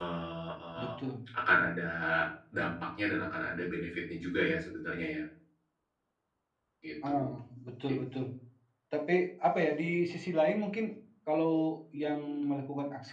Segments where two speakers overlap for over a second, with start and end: none

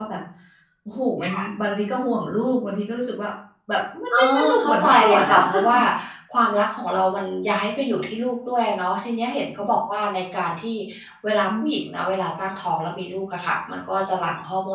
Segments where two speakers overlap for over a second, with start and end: 4.1-5.8

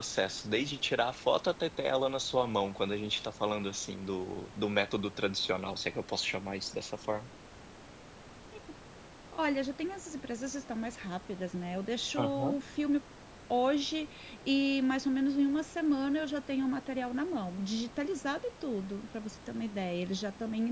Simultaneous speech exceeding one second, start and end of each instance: none

